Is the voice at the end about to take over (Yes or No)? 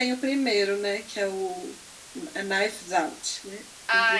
Yes